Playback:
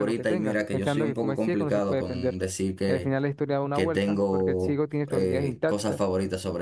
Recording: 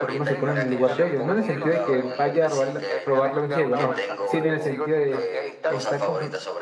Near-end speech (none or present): present